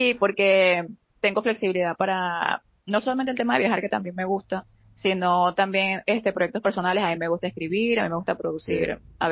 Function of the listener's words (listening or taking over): listening